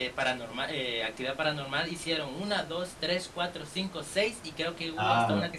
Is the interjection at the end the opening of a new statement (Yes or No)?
Yes